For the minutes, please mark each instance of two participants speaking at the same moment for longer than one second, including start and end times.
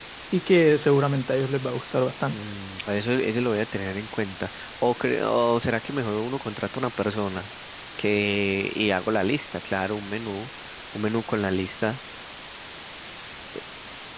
none

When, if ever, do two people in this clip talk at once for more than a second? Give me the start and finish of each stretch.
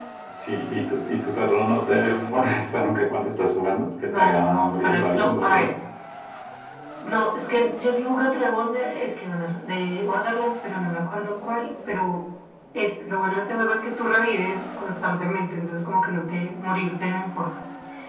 4.0-5.7

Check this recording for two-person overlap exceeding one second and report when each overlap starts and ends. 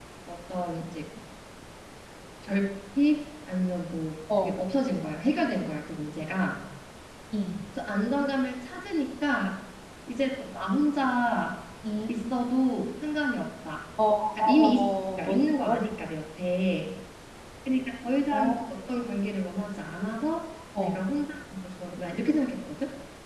14.6-15.8

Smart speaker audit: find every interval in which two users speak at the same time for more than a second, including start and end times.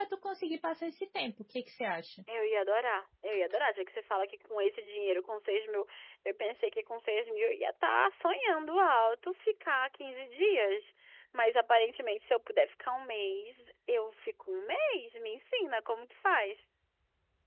none

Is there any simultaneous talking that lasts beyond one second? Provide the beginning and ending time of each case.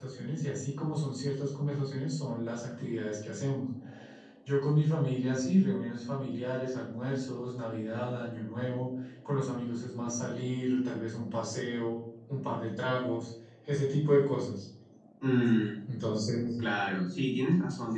none

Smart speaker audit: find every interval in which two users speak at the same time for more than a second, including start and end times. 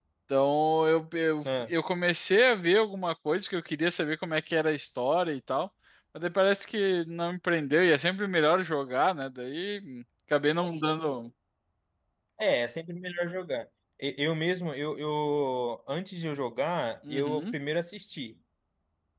none

